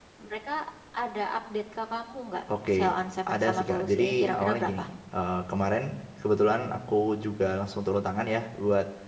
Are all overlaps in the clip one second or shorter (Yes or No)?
No